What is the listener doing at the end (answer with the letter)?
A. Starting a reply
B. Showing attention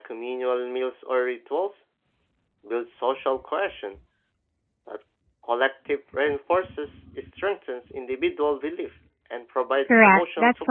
A